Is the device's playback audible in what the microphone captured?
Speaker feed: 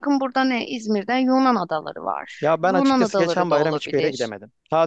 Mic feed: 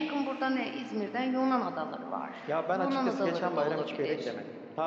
Yes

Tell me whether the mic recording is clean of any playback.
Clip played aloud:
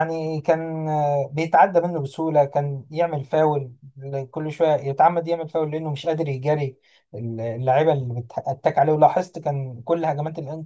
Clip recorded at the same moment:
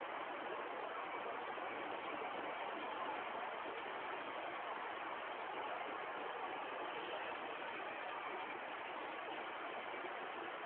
Yes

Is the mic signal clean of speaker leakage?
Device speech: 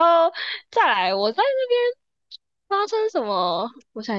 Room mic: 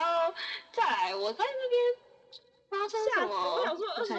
No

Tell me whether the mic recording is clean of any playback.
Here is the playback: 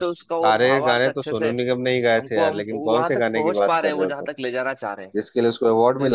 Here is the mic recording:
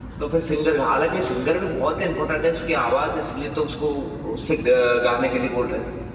Yes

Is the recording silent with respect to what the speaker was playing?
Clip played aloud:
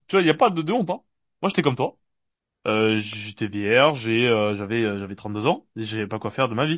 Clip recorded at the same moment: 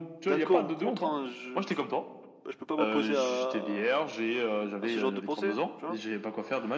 No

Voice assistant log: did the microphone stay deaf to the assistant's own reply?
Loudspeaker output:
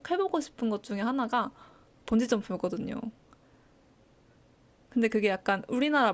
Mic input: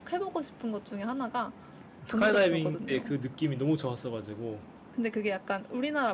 No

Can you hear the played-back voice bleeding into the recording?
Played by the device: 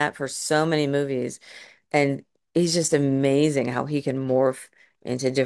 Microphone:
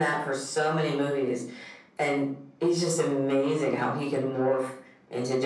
Yes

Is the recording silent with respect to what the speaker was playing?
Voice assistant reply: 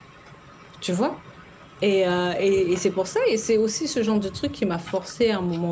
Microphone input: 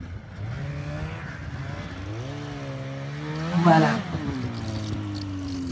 Yes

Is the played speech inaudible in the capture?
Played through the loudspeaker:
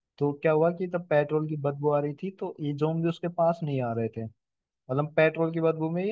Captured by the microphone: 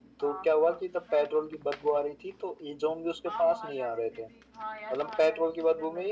No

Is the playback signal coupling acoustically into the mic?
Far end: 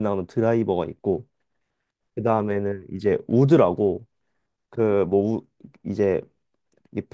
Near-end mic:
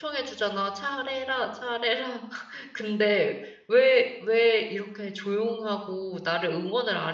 No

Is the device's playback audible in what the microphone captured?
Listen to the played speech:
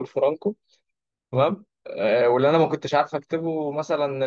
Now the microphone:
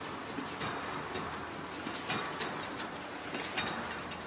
No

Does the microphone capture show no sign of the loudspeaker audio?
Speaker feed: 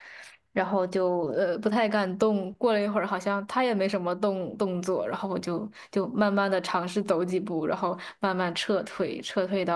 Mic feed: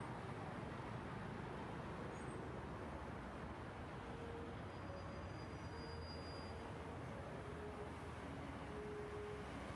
Yes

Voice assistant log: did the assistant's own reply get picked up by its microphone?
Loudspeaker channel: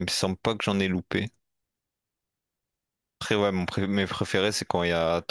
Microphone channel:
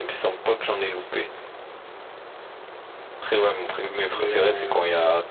Yes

